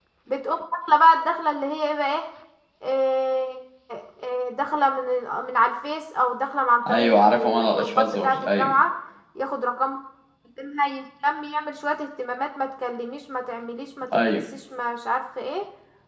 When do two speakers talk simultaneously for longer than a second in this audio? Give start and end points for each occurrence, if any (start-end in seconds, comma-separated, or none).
6.9-8.7